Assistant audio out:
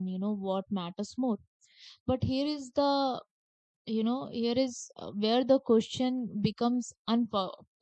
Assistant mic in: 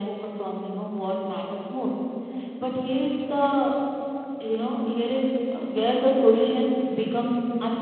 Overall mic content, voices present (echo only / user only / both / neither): echo only